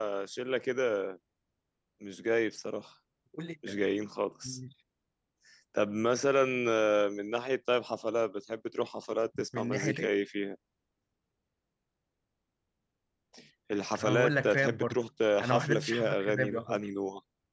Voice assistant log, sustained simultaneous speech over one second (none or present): present